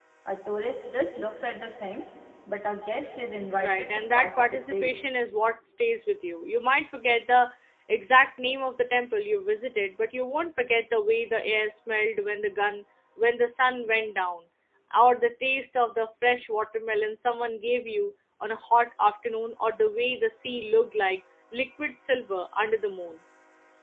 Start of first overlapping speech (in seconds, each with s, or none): 3.6 s